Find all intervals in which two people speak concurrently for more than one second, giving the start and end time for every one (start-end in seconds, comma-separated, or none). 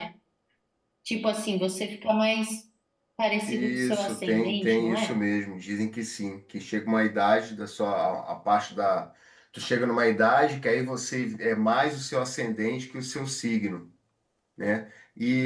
3.5-5.2